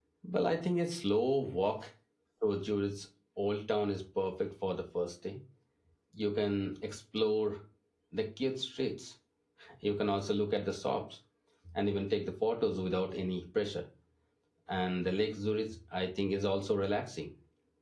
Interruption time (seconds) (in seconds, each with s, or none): none